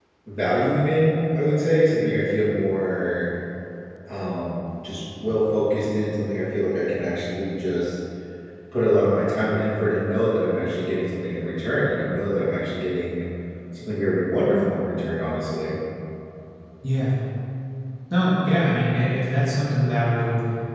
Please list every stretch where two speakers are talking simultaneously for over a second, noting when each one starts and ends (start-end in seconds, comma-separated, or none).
none